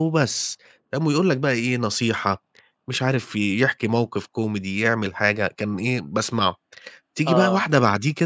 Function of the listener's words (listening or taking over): listening